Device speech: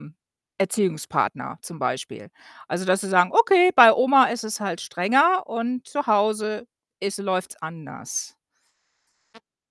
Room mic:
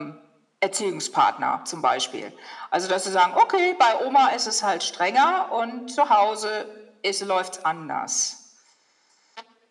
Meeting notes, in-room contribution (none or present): none